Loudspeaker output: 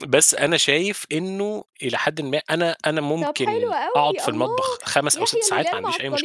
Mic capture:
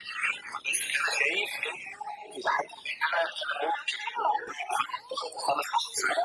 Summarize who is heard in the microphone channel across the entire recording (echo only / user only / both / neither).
echo only